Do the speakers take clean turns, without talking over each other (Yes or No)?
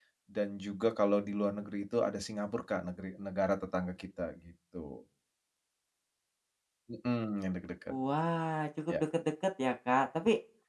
Yes